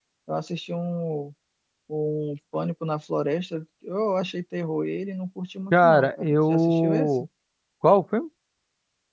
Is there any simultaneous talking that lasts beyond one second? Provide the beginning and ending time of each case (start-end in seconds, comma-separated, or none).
5.7-7.3